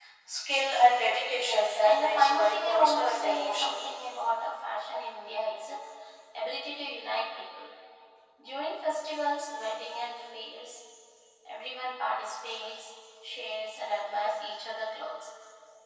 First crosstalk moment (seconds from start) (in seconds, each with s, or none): 1.3 s